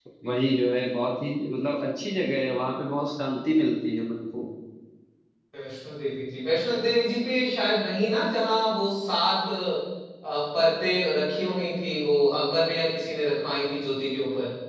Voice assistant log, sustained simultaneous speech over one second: none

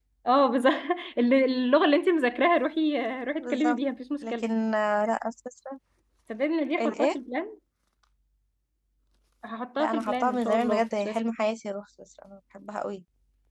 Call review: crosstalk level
present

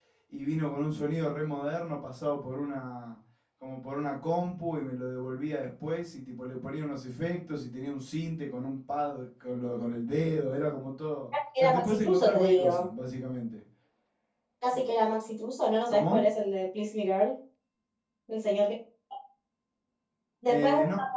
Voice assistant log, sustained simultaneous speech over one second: present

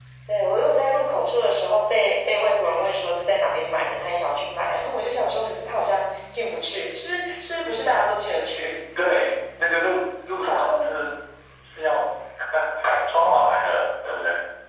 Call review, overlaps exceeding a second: none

